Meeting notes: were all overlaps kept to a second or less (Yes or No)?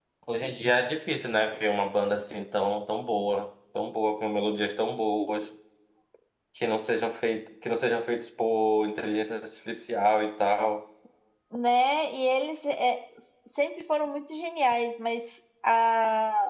Yes